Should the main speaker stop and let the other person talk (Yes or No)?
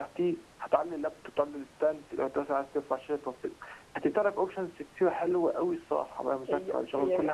Yes